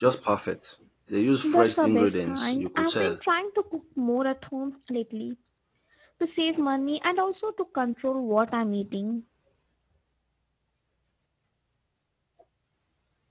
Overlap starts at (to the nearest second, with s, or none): 1 s